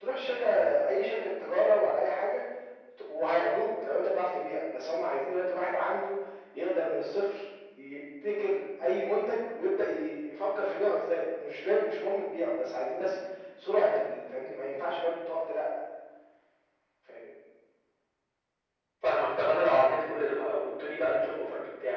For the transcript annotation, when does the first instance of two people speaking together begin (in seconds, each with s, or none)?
none